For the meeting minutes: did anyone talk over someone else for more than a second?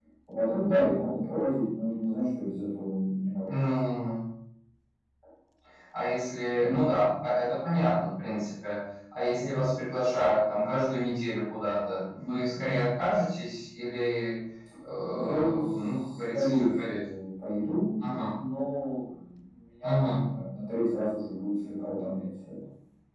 Yes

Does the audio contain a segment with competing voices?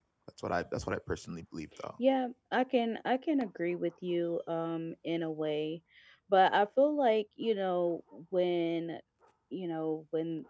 No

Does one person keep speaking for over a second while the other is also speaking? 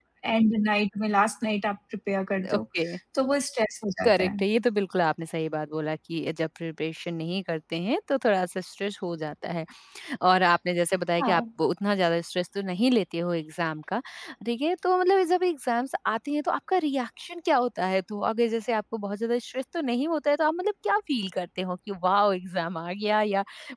No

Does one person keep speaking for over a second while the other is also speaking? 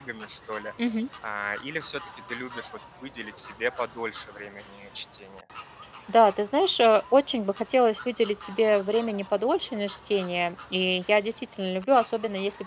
No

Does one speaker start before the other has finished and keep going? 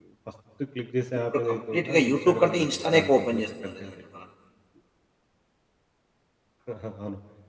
Yes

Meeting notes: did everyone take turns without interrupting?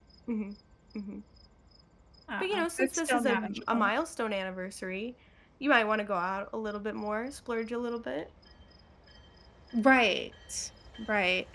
No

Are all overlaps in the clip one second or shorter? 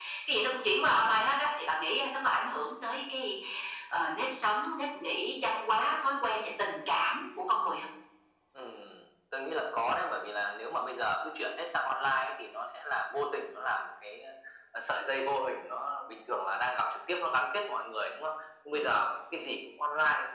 Yes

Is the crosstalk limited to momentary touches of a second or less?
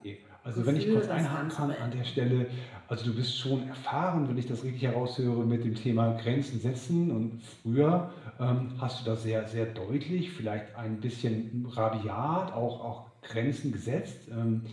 No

